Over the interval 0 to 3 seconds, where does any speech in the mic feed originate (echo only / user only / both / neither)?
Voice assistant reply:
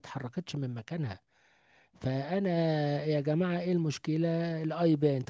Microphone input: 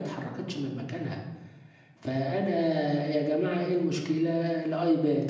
echo only